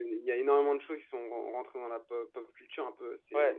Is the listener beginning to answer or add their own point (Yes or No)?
Yes